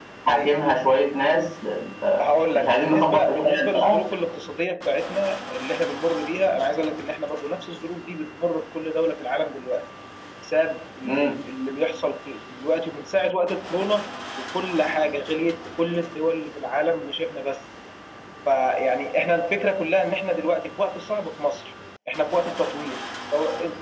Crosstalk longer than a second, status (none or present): present